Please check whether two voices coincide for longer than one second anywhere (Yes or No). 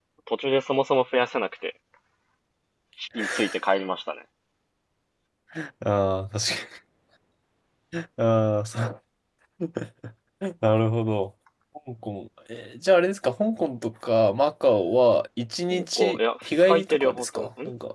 Yes